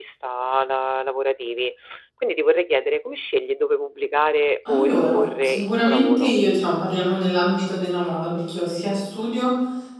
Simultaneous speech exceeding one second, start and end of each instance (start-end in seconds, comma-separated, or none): 4.7-6.4